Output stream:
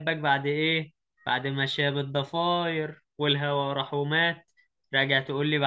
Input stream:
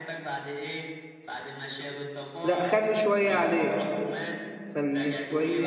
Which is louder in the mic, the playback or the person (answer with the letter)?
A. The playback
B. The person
B